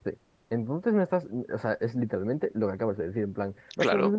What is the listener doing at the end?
taking over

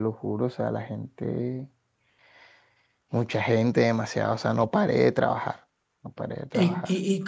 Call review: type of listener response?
taking over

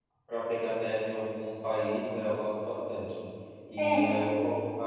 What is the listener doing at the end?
listening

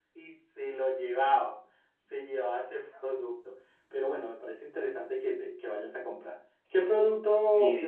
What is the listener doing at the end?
taking over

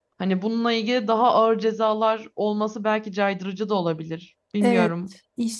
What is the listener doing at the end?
taking over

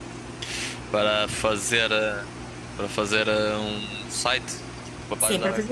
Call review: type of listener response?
taking over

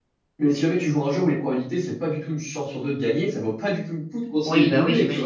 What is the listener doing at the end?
taking over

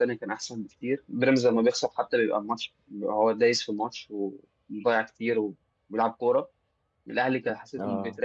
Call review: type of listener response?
listening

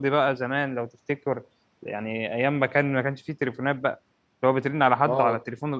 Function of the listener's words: listening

